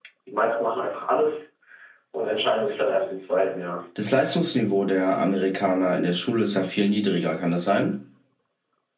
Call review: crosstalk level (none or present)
none